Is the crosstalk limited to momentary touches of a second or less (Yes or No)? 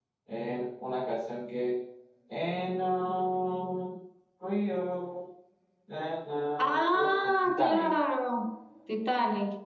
No